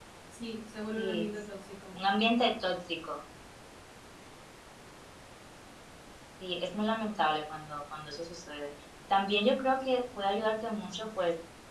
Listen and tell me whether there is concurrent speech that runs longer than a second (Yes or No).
No